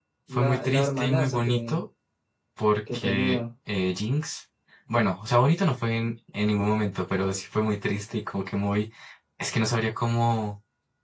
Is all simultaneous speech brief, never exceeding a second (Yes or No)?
No